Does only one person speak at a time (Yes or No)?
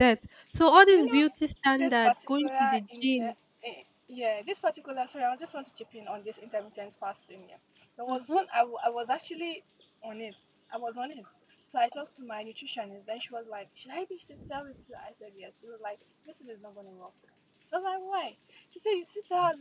No